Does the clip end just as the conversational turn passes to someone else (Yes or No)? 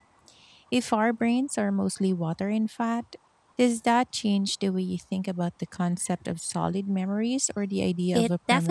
Yes